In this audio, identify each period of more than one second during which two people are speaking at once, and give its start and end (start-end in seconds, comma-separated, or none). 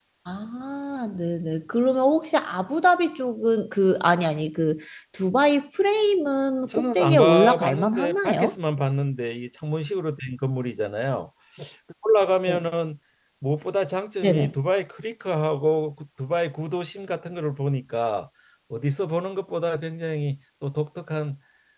6.7-8.6